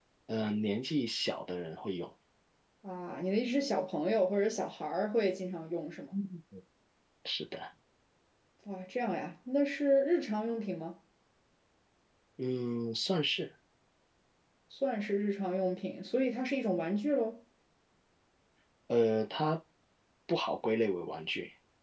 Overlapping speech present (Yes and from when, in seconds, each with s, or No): No